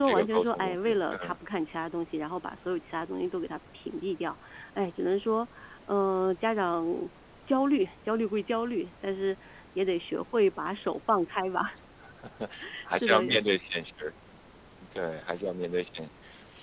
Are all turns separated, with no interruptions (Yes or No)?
No